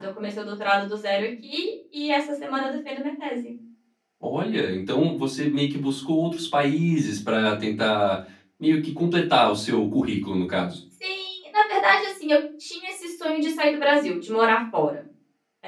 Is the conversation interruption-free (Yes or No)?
Yes